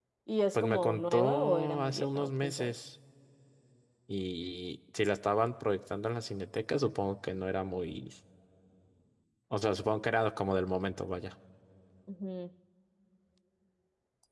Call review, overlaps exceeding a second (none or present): present